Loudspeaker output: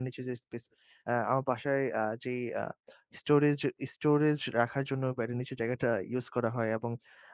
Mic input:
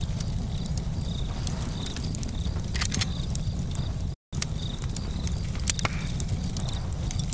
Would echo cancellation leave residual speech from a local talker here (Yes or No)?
No